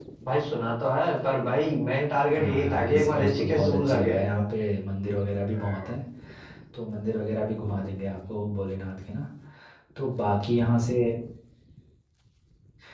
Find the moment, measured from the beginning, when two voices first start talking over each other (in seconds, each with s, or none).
2.4 s